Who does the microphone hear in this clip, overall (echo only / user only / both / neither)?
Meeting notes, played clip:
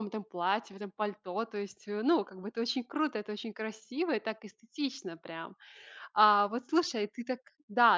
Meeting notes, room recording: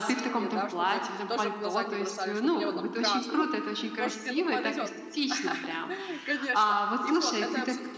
both